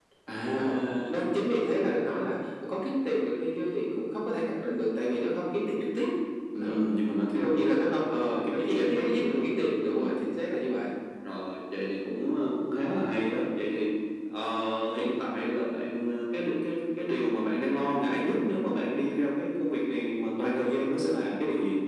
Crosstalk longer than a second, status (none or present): present